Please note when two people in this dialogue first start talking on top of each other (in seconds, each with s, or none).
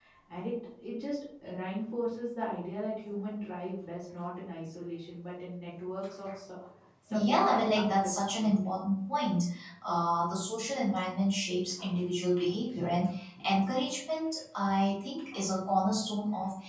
7.1 s